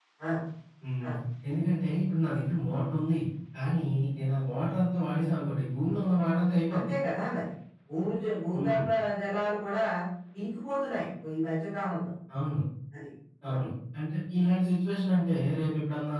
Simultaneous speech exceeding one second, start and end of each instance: none

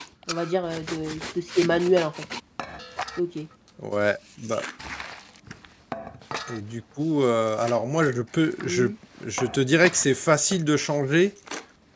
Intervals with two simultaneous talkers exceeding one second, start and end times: none

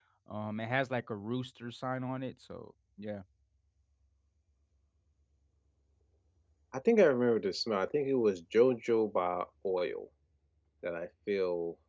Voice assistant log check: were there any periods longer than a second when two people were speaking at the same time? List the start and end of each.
none

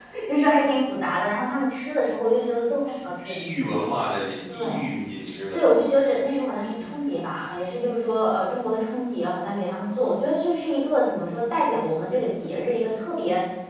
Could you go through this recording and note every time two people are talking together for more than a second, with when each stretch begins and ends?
none

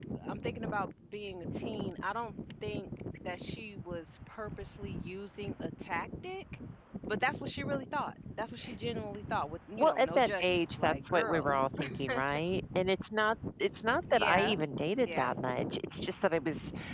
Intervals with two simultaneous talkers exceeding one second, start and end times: 9.8-11.5

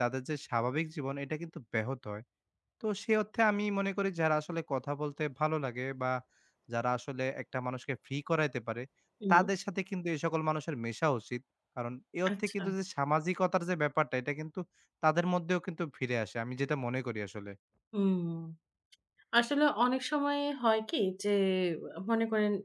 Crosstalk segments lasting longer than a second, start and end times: none

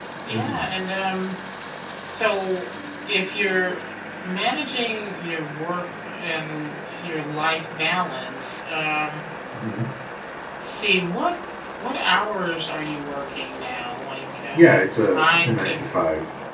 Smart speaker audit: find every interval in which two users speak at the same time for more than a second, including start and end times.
14.5-15.8

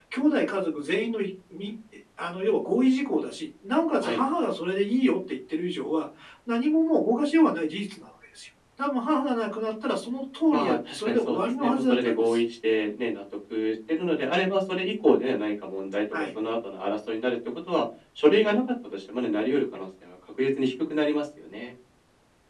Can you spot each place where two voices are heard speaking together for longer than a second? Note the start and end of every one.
10.5-12.4

